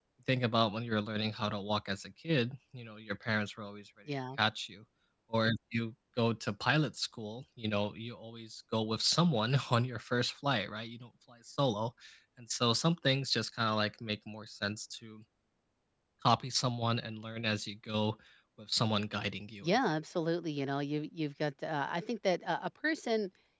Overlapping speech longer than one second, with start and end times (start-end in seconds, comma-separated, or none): none